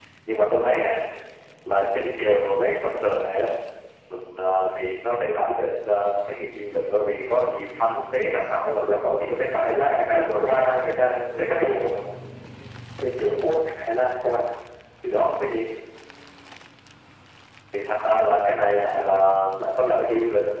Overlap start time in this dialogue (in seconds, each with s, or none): 8.7 s